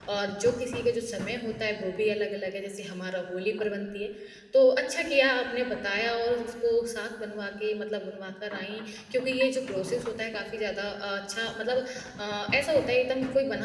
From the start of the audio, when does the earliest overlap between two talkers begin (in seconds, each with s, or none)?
none